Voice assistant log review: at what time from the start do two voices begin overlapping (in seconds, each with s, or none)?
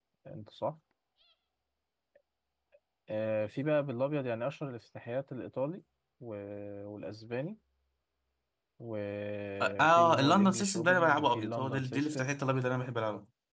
9.6 s